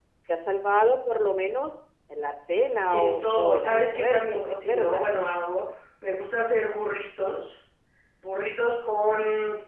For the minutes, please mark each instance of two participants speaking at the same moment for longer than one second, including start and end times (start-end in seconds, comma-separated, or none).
2.9-5.1